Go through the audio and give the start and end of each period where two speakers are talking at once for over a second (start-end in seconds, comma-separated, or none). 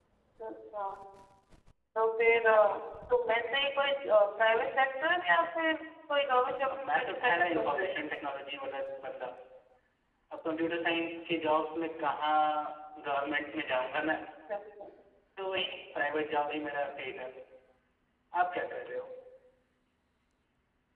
6.7-7.9